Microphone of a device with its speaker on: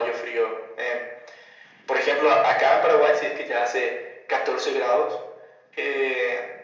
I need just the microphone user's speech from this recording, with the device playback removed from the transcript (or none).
none